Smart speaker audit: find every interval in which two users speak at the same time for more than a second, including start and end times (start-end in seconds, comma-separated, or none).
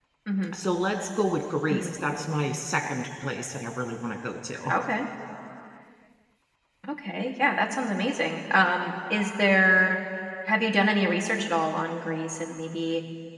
none